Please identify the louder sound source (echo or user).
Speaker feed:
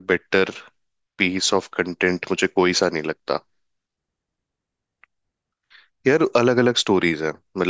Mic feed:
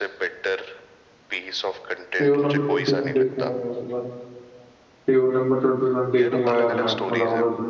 user